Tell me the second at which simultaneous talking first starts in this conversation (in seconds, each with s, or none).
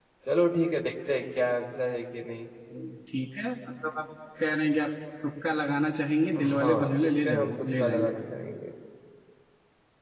6.4 s